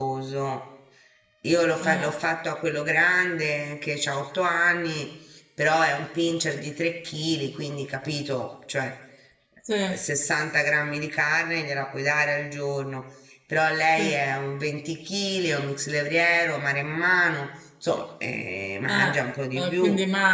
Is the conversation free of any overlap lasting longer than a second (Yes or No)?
Yes